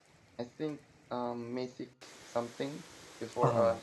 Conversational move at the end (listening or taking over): listening